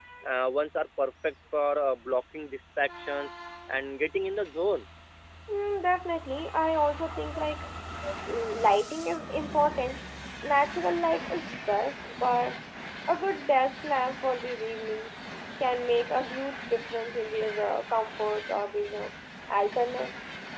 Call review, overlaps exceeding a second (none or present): none